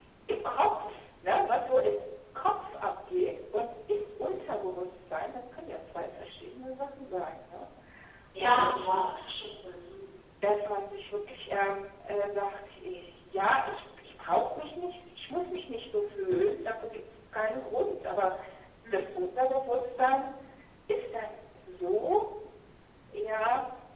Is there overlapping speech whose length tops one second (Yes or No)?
No